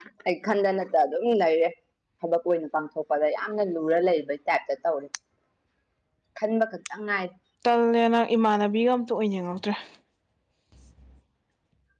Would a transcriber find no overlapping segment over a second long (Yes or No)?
Yes